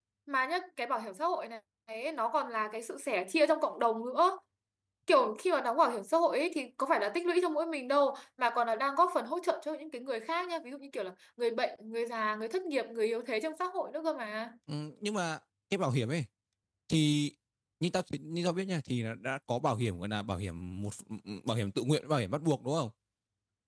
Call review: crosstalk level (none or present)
none